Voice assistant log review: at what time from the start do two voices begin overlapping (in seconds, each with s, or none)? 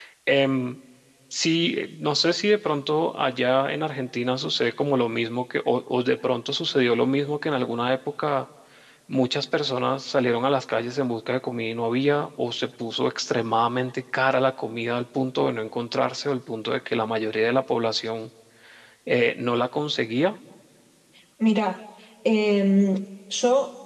none